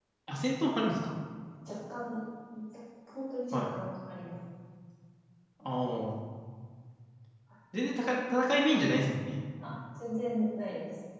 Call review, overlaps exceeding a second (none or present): none